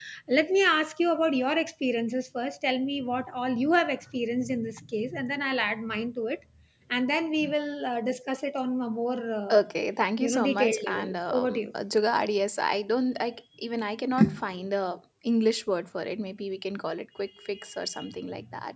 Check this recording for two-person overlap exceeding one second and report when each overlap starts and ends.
10.2-11.7

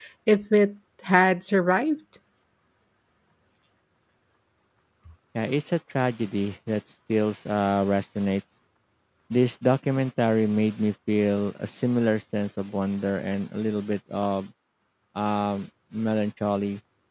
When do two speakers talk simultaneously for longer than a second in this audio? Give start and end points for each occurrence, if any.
none

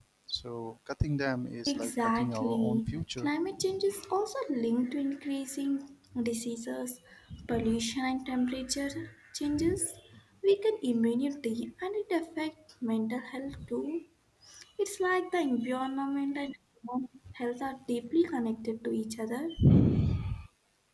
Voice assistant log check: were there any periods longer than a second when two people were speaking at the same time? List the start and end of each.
1.7-3.3

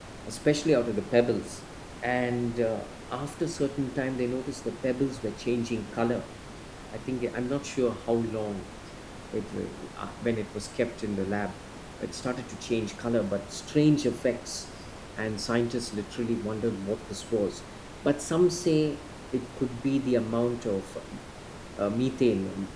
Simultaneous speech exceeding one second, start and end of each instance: none

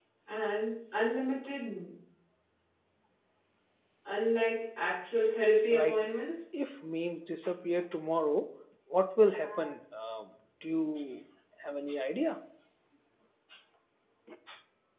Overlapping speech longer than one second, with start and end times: none

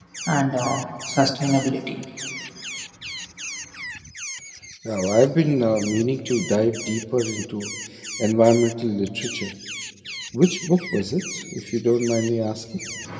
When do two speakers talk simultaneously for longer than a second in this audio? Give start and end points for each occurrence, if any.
none

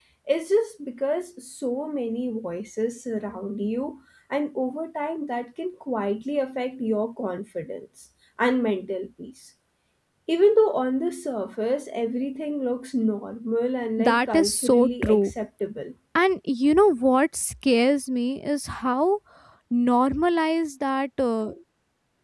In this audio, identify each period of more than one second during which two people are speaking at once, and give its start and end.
14.0-15.3

